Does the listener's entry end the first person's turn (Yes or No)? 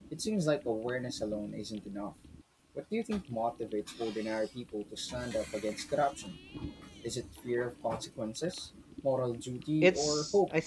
Yes